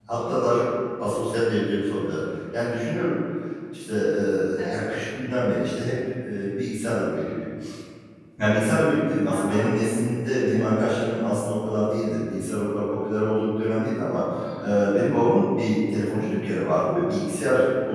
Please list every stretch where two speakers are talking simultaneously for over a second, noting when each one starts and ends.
none

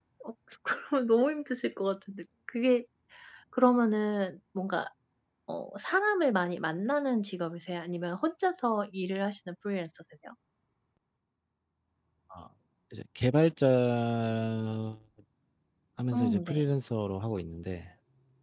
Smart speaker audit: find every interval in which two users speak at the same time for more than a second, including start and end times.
none

